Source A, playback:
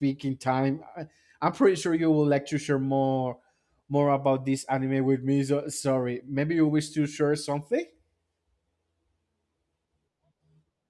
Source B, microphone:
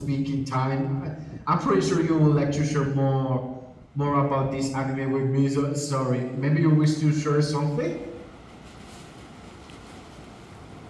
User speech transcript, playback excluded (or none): none